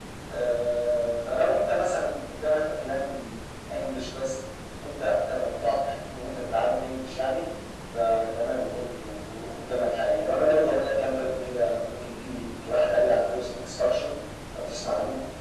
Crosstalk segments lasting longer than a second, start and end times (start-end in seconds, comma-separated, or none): none